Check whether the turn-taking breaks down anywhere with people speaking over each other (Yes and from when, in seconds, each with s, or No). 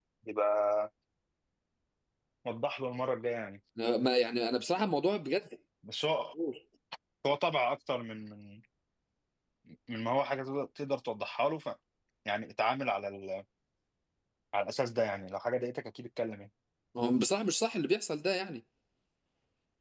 No